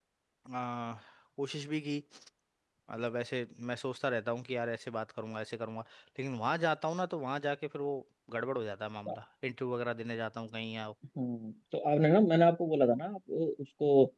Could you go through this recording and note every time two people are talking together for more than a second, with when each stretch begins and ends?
none

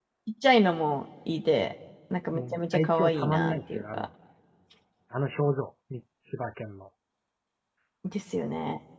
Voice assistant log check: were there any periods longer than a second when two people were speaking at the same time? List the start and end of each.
2.3-4.0

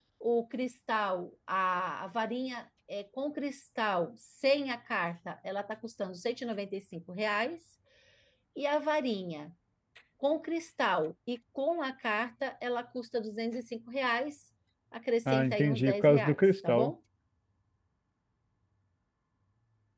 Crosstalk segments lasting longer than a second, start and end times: 15.2-16.9

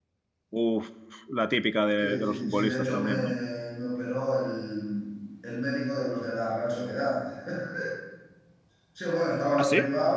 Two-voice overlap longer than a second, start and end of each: 2.0-3.4

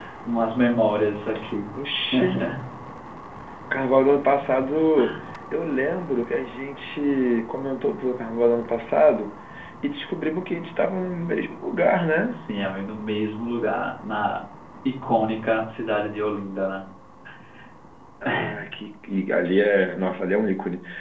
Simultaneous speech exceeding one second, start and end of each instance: none

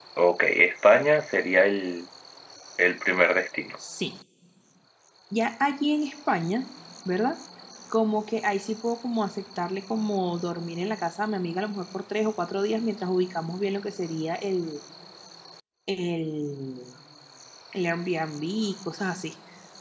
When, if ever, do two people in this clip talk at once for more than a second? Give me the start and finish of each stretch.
none

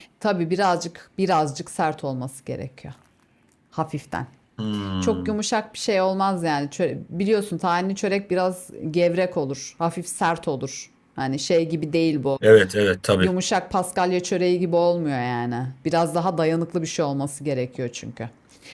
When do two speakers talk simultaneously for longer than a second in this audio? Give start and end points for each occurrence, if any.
none

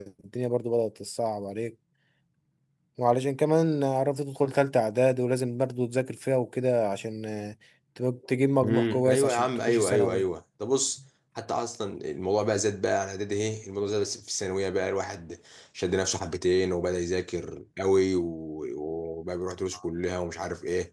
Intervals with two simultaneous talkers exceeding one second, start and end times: 8.6-10.3

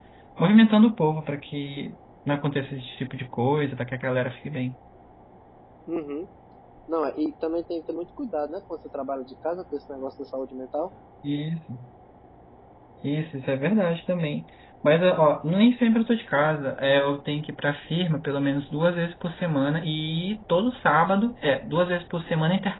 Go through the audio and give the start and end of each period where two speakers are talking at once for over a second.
none

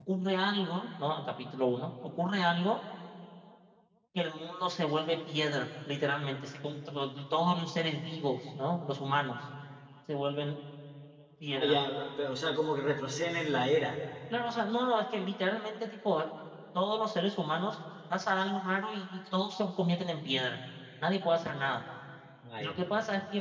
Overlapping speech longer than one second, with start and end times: none

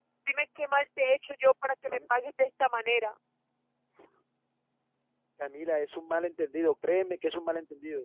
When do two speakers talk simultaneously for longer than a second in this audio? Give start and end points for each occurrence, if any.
none

